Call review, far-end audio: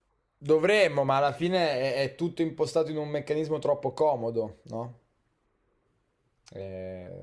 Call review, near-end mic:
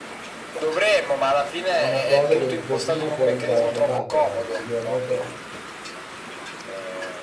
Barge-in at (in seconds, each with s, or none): 1.8 s